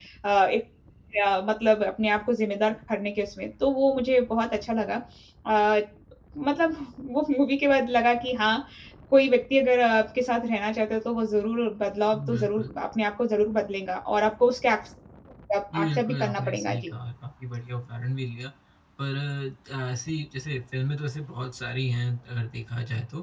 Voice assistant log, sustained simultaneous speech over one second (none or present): present